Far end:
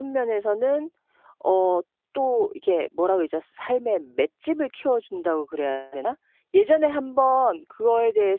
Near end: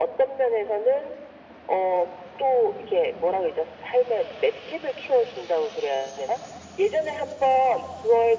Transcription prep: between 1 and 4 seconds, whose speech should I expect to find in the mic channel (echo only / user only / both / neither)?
echo only